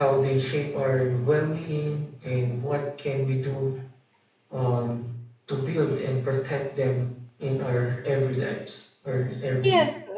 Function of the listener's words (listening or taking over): taking over